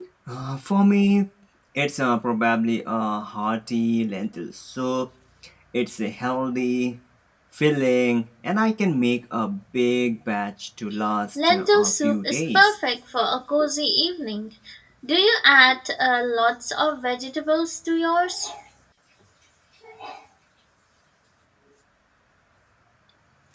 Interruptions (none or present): present